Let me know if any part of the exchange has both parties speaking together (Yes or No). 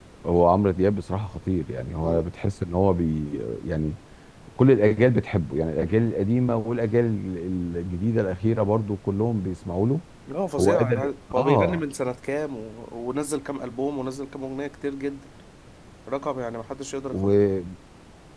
Yes